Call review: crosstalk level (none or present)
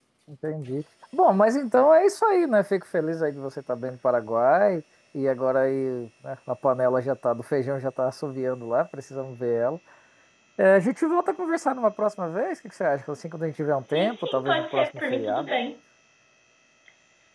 present